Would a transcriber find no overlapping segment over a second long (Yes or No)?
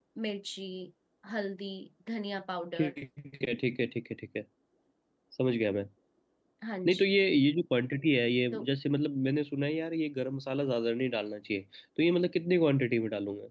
Yes